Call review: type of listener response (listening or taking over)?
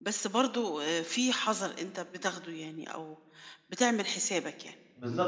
taking over